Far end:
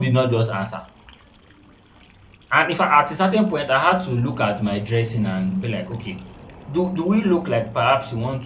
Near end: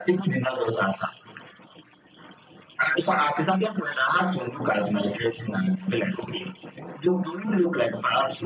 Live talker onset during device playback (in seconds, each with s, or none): none